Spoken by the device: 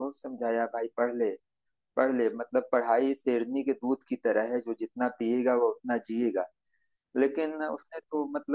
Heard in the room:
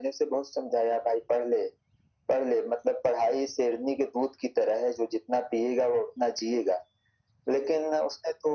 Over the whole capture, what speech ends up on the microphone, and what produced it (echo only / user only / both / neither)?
echo only